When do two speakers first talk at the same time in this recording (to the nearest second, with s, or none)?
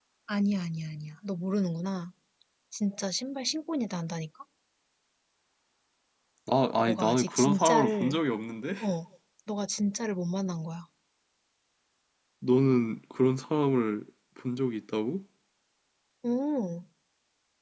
7 s